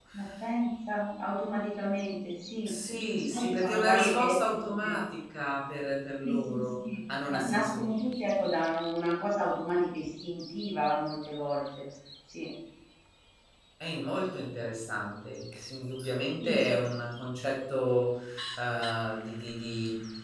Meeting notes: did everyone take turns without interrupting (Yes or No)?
No